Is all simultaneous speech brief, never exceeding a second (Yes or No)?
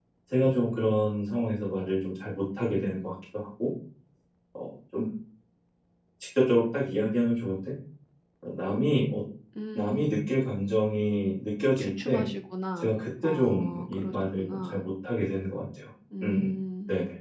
No